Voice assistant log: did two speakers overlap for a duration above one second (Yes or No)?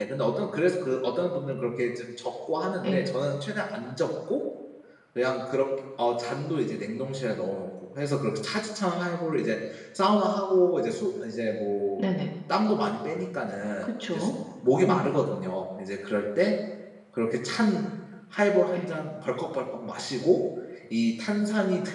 No